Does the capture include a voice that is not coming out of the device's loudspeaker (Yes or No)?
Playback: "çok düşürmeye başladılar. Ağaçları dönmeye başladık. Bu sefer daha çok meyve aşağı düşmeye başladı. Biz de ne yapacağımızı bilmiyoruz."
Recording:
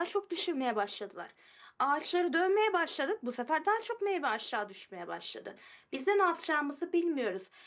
No